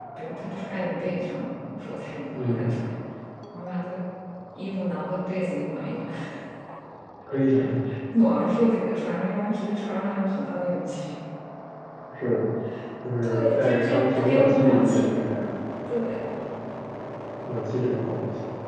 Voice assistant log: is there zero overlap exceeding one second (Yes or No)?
No